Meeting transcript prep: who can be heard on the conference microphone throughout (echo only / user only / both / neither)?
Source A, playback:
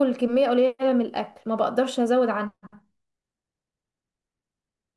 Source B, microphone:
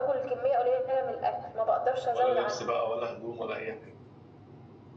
both